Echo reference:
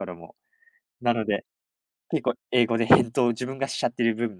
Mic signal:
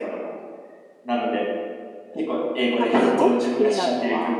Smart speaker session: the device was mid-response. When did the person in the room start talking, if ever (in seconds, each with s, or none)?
2.8 s